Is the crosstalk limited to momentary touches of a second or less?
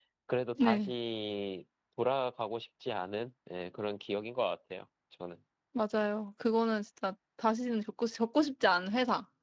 Yes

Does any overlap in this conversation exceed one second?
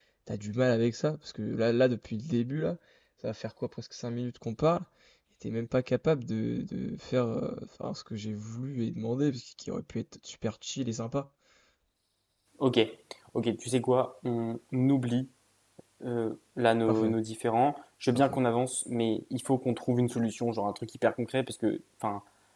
No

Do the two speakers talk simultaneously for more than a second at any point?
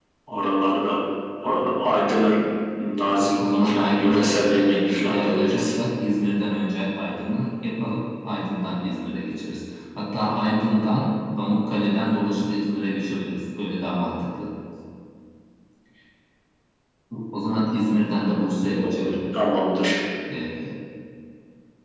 Yes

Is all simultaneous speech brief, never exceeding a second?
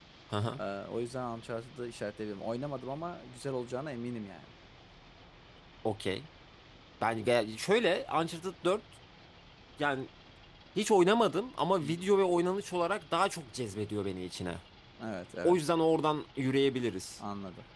Yes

